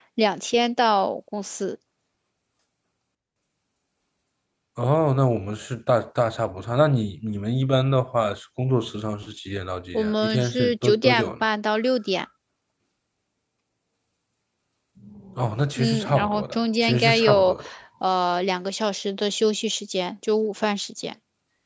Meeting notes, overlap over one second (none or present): present